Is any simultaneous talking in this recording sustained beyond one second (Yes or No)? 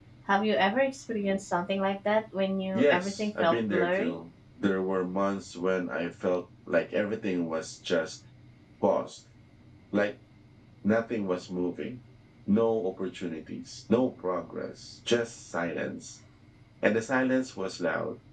Yes